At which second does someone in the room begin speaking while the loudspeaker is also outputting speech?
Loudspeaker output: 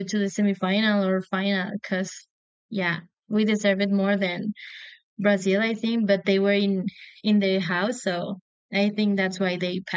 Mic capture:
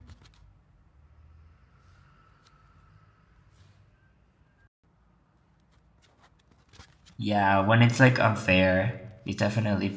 7 s

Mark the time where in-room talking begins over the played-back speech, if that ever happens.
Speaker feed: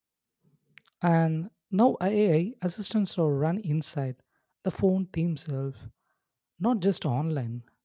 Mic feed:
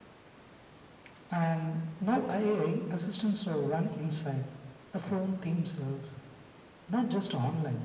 none

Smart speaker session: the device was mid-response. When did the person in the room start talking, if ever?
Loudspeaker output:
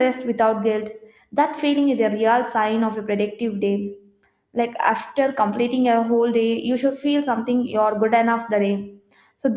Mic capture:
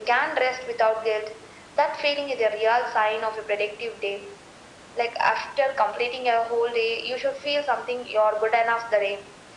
none

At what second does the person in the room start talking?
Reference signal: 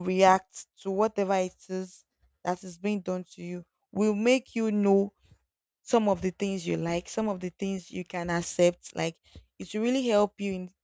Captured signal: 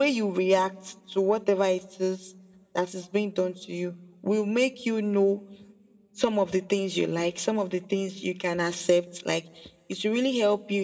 none

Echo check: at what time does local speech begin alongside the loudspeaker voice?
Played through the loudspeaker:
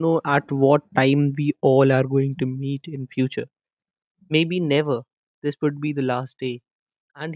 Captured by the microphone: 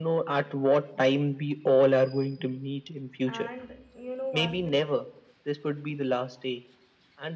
3 s

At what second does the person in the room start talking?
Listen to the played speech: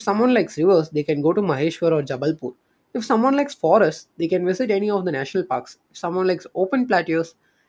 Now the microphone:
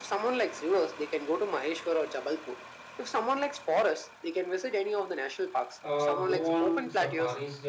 6 s

